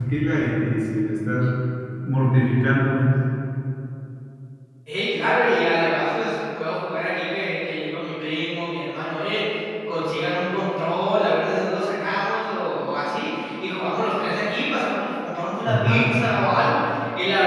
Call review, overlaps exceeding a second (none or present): none